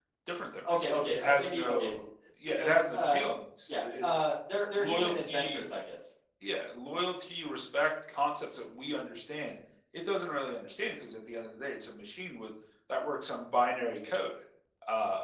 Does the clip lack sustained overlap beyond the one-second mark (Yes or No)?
No